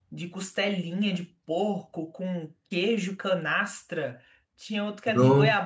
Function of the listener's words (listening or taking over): listening